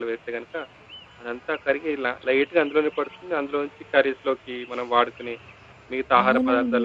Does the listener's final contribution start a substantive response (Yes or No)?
Yes